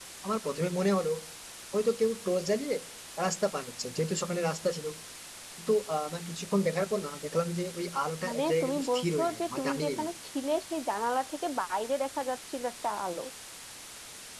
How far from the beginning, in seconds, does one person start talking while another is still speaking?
8.2 s

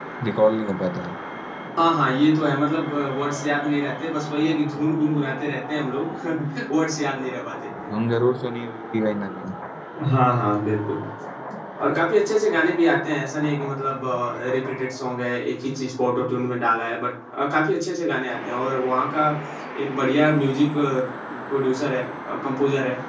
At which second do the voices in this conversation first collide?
none

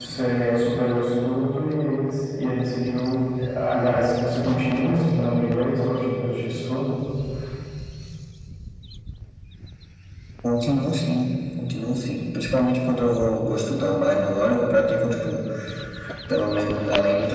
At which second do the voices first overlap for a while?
none

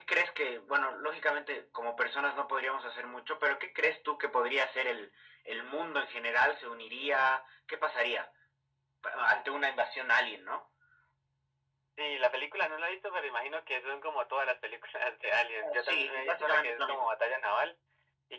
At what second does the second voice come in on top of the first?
15.6 s

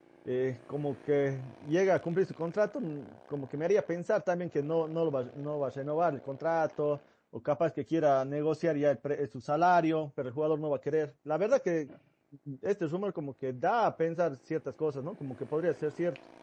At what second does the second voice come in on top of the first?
none

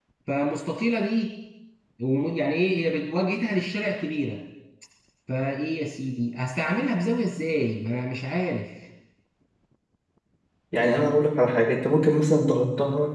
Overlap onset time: none

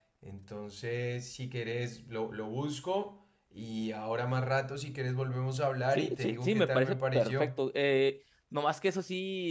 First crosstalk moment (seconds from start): 5.9 s

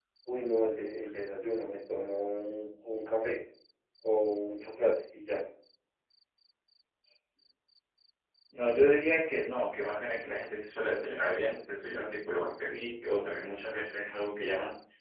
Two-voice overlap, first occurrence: none

